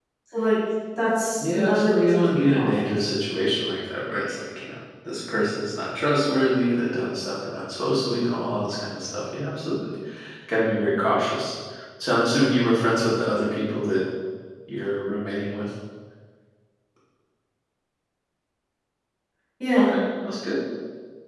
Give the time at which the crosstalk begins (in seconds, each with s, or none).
1.4 s